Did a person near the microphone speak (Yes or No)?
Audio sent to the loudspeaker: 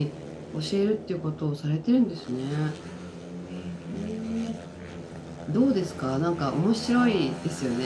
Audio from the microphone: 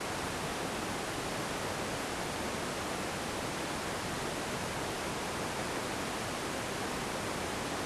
No